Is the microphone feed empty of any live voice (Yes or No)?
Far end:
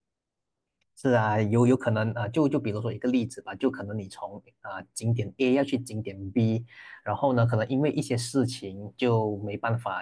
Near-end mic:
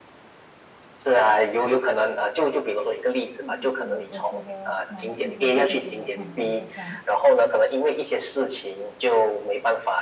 No